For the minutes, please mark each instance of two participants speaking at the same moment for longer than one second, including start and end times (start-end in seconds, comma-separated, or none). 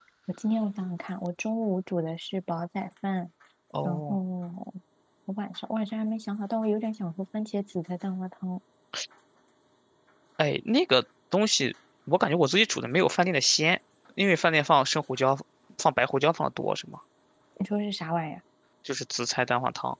none